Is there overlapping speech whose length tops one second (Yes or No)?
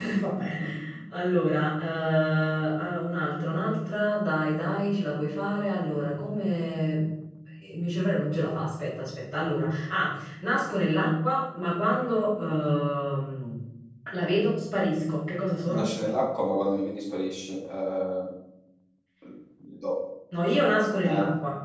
No